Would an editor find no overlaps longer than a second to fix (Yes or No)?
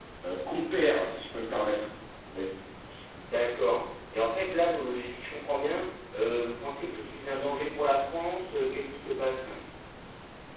Yes